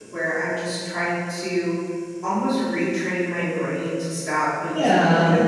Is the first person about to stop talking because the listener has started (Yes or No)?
No